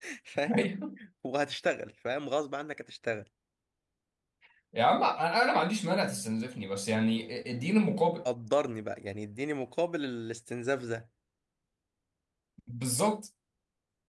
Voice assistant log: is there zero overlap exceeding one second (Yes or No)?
Yes